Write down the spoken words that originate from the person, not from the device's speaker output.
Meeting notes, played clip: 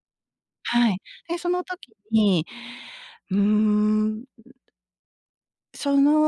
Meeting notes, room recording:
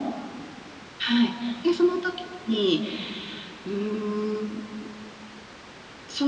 none

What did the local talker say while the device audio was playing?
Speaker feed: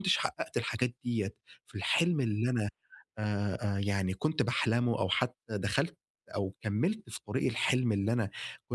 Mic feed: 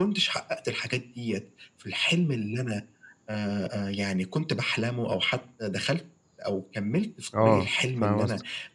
آه، فاهم قصدك.

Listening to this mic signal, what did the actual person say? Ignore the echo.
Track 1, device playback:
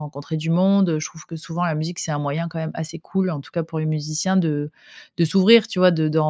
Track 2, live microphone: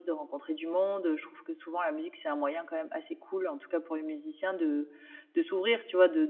none

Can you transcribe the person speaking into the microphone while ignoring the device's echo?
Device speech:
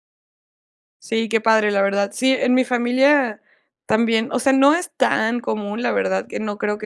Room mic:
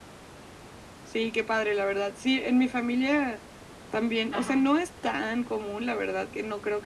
Ajá.

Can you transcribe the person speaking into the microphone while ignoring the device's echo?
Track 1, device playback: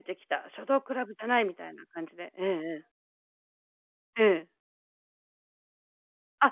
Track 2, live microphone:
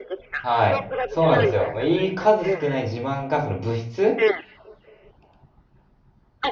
はい。そうなんですよ。まあ、いい数少ない自慢が、その、部室

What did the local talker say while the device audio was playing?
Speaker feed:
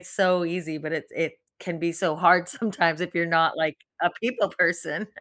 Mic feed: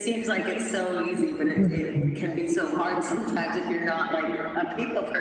Mhm.

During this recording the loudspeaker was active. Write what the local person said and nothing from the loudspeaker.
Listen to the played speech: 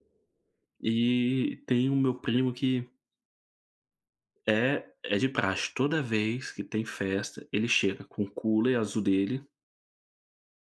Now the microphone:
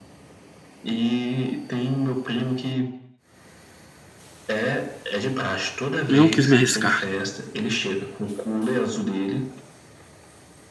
Não quis me arriscar.

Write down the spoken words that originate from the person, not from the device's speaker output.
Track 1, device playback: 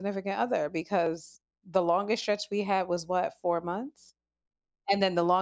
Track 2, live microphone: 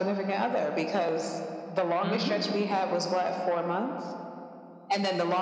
mhm.

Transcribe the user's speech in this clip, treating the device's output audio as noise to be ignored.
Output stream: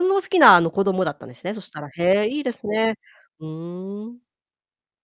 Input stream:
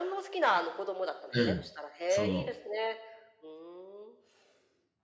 うん、そう。

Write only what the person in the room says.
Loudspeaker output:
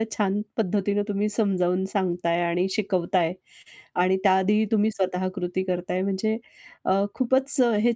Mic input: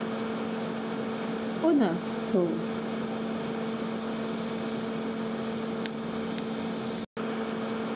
हो ना. हो.

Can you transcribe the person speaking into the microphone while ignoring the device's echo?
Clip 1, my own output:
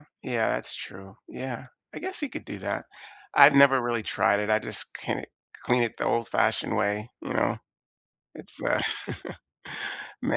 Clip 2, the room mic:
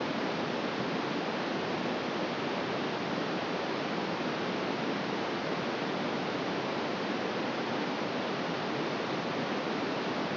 none

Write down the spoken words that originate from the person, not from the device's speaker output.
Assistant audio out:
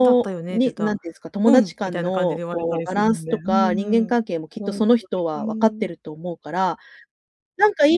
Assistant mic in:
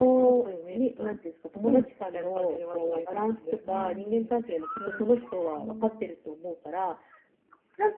none

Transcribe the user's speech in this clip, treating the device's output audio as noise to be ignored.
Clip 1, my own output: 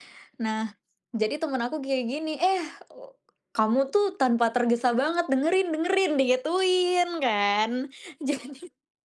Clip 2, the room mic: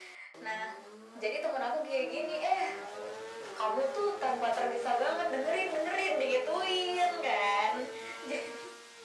none

